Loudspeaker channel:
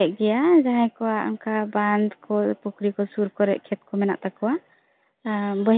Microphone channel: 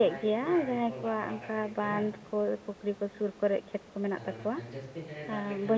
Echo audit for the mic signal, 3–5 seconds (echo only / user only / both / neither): both